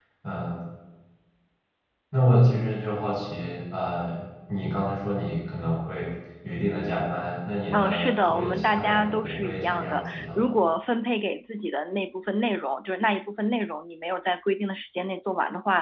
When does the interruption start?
7.7 s

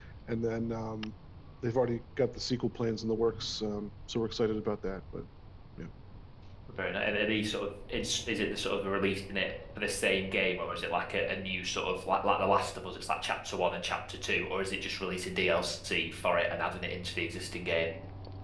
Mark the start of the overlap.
none

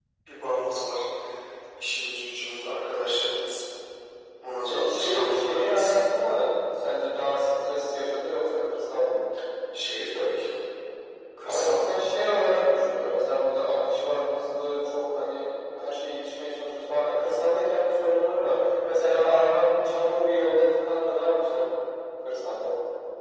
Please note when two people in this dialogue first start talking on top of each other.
4.7 s

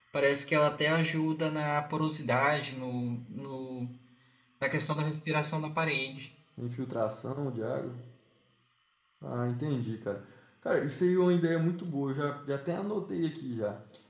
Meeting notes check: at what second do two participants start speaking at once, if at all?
none

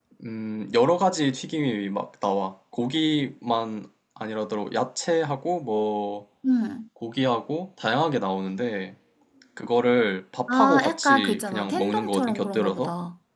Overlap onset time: 10.5 s

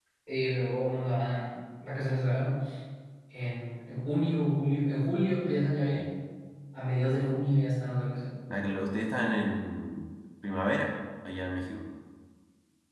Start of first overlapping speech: none

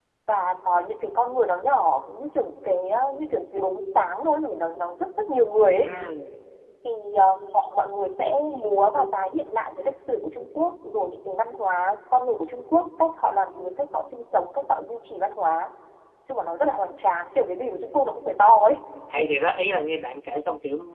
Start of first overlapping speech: none

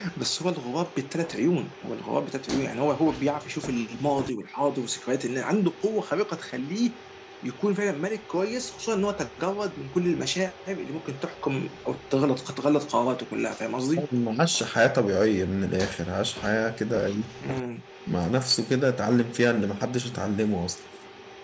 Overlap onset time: none

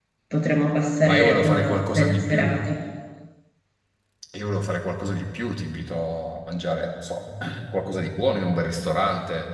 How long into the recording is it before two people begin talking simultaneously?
1.0 s

